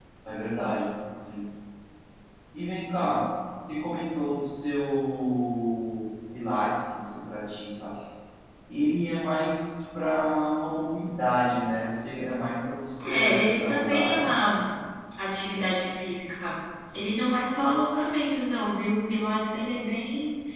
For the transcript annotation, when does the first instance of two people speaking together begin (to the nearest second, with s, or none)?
13 s